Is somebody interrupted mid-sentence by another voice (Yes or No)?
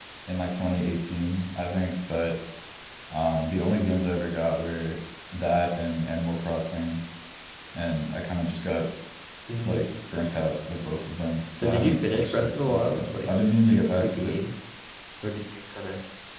Yes